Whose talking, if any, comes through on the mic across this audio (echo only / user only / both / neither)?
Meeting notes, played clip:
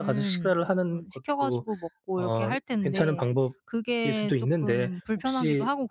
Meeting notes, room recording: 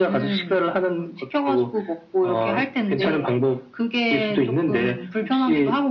echo only